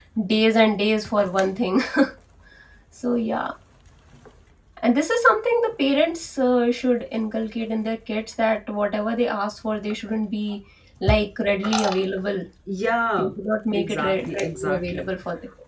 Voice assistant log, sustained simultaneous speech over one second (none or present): present